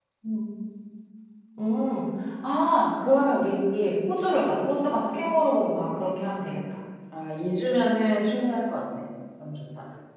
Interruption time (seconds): none

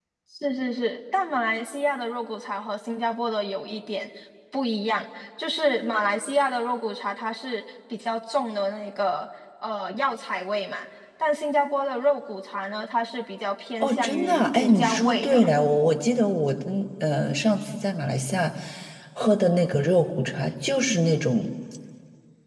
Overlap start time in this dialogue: 13.8 s

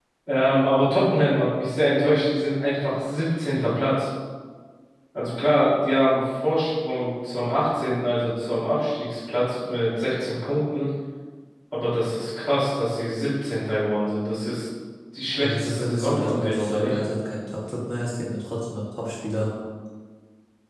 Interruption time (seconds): 15.4 s

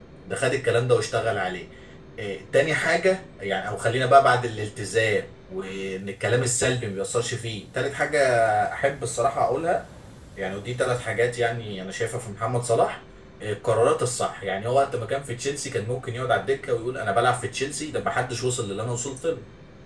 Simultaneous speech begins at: none

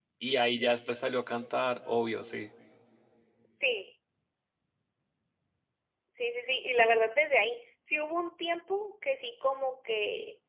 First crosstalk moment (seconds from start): none

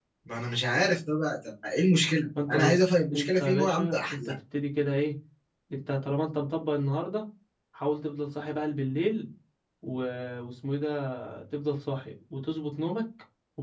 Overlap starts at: 2.3 s

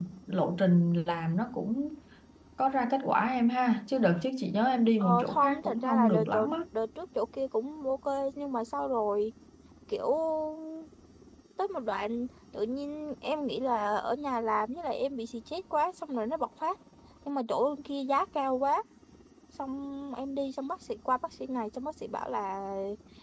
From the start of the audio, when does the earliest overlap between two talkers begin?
5.0 s

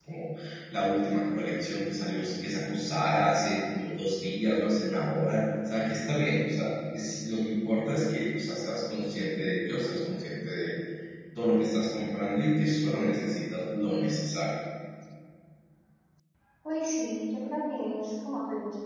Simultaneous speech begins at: none

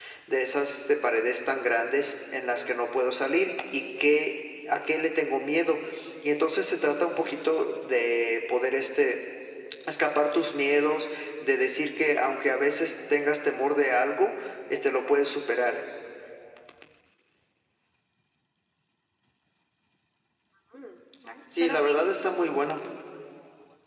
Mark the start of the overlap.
21.5 s

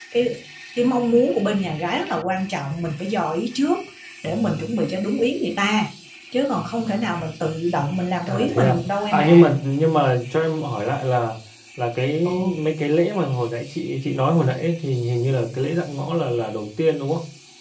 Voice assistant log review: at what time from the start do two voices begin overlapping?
8.3 s

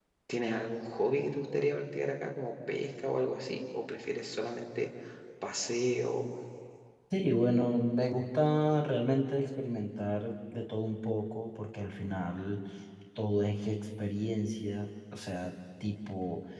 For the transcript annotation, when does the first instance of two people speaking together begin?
none

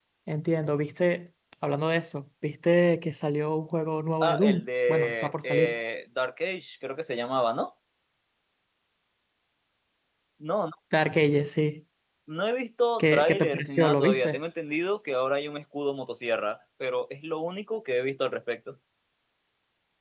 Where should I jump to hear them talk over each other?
4.2 s

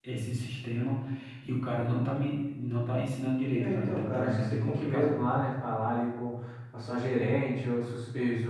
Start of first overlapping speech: 3.6 s

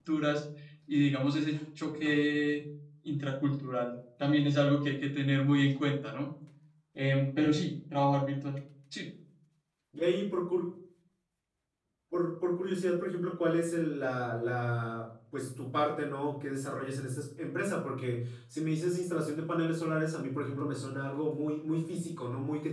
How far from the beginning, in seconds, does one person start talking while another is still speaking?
none

